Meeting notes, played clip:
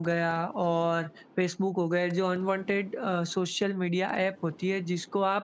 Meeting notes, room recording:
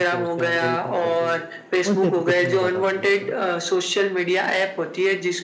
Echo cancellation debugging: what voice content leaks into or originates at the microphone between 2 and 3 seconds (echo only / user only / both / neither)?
both